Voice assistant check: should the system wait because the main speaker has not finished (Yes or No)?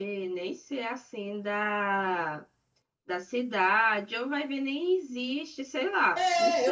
No